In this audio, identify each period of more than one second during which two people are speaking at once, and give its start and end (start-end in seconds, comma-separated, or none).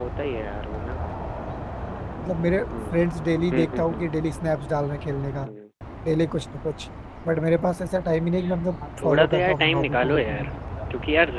9.0-10.5